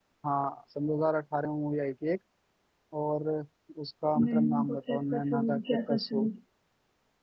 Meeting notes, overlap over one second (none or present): present